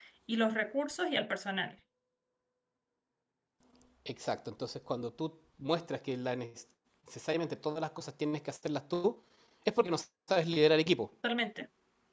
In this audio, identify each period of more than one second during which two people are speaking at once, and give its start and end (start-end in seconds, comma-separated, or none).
none